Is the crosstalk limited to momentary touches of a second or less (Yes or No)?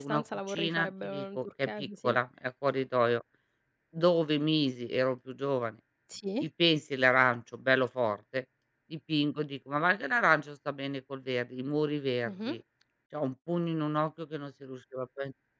No